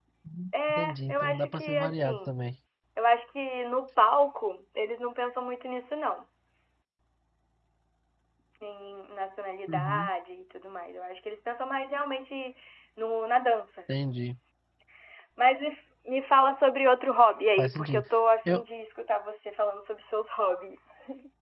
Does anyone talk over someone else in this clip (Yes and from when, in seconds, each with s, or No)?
Yes, from 0.7 s